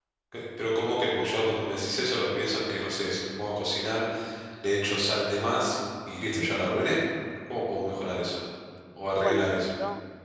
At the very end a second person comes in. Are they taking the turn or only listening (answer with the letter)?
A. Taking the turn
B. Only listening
A